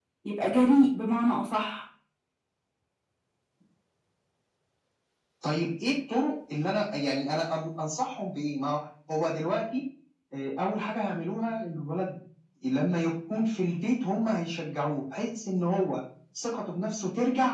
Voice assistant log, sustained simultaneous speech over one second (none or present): none